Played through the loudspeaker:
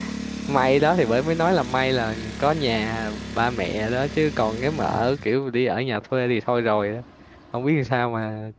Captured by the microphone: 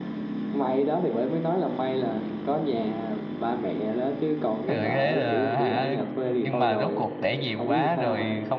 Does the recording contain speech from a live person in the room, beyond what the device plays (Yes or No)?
Yes